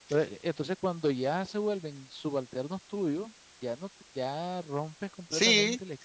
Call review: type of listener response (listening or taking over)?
taking over